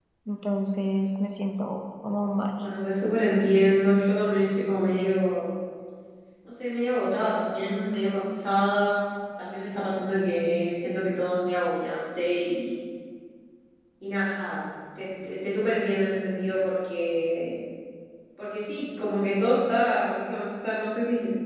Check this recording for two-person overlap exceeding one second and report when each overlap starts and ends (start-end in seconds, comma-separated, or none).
none